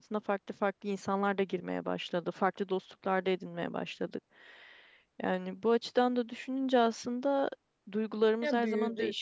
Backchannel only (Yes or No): Yes